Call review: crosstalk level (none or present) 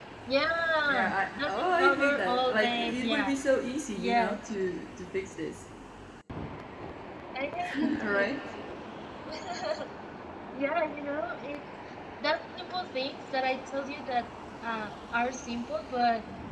present